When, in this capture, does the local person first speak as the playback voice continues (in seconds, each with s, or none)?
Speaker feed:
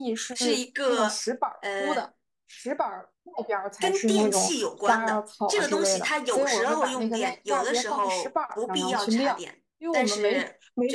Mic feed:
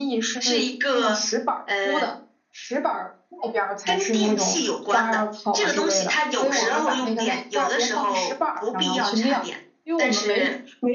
none